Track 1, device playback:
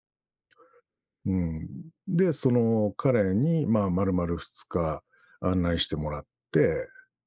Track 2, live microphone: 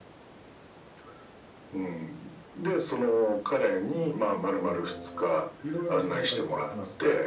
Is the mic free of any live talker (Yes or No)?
No